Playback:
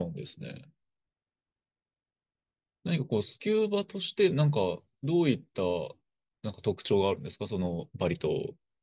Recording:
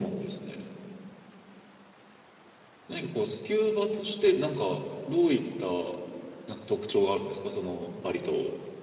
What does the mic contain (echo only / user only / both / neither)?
echo only